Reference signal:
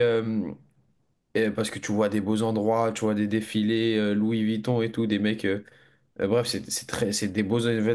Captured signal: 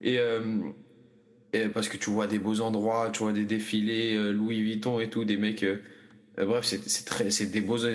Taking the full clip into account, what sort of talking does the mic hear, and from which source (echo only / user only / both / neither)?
echo only